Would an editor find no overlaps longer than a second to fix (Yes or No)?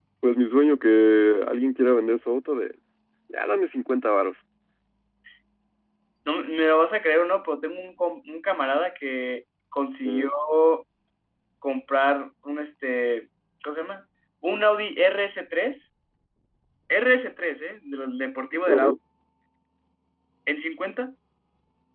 Yes